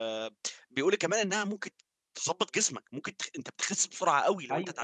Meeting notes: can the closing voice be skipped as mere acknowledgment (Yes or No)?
No